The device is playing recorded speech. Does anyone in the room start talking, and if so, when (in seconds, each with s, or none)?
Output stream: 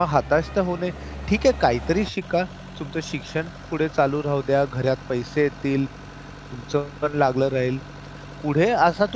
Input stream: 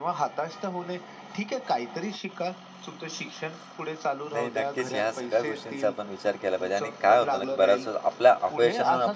4.2 s